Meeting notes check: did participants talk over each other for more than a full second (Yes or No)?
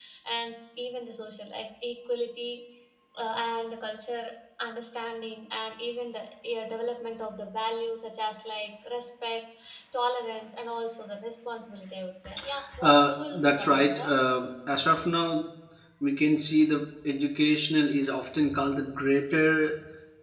Yes